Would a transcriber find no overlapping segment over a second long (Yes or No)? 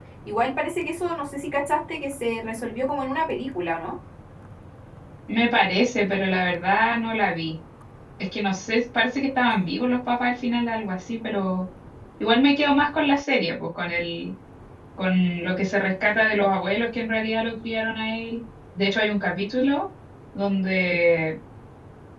Yes